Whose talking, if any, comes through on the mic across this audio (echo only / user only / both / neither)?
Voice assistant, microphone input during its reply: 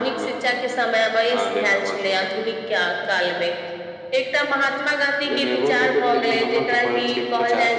echo only